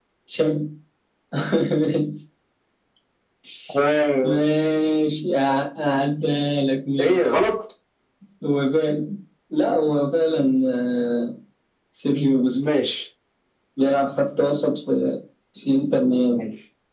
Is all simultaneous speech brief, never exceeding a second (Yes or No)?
Yes